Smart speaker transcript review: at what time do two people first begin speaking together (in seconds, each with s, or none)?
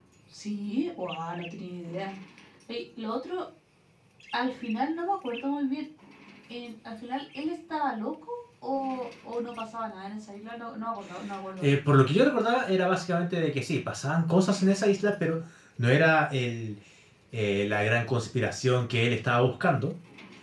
none